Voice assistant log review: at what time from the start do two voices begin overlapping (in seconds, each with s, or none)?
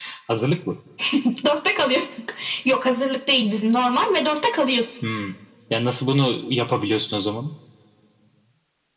none